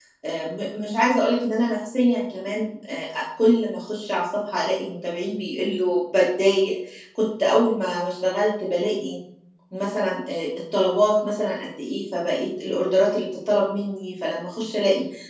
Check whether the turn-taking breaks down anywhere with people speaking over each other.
No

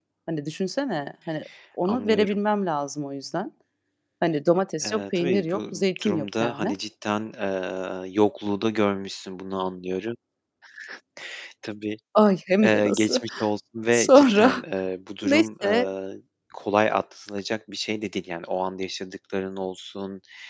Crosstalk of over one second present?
Yes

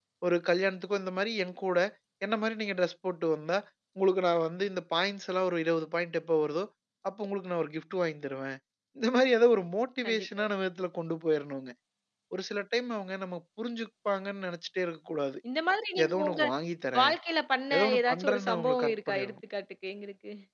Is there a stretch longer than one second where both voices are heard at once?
Yes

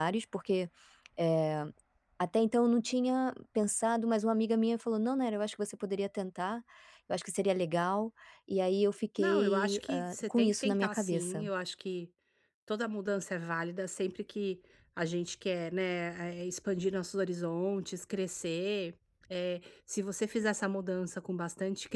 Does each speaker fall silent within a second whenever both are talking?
No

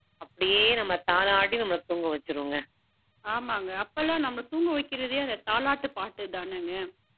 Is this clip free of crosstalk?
Yes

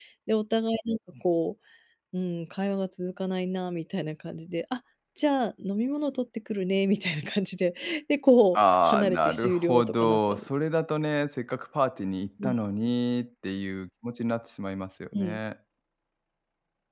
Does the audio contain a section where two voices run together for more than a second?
Yes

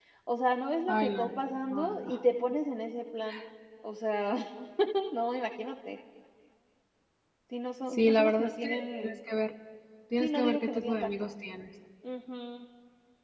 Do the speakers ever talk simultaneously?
Yes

